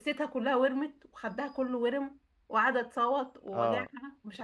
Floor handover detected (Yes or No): Yes